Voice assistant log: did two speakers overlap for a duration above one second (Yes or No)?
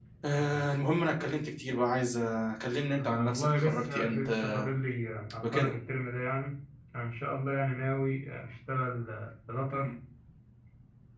Yes